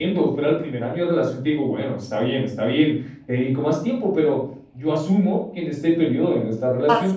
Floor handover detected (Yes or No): No